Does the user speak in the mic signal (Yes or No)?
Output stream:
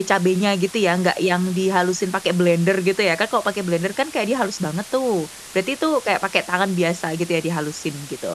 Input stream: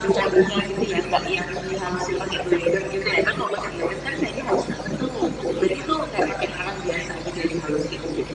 No